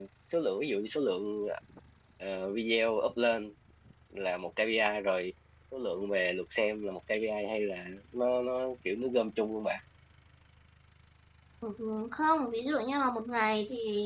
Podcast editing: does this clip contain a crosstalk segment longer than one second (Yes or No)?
No